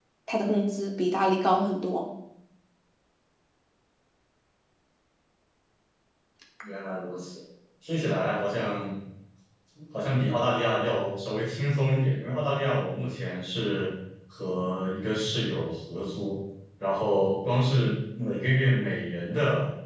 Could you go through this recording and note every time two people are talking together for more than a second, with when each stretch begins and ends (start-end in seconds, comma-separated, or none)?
none